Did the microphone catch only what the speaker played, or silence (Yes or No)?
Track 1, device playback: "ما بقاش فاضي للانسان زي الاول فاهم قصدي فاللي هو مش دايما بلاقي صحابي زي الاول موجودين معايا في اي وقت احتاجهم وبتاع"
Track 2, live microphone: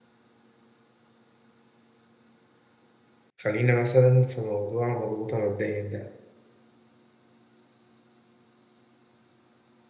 No